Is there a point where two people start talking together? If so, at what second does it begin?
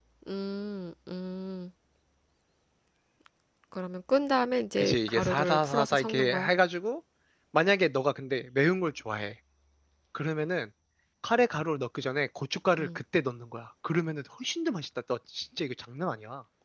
4.8 s

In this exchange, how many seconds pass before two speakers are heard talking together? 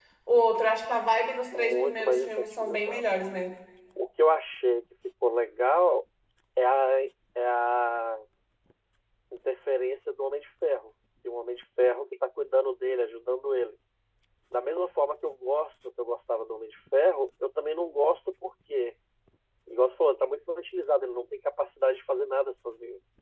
1.5 s

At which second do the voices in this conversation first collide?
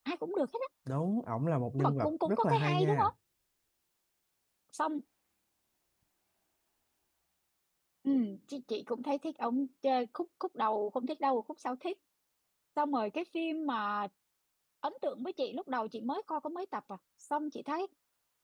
1.8 s

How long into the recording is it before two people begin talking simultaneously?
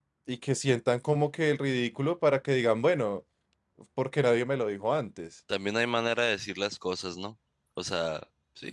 none

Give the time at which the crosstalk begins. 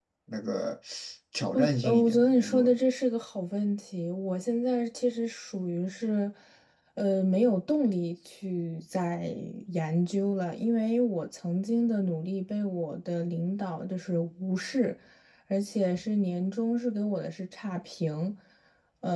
1.5 s

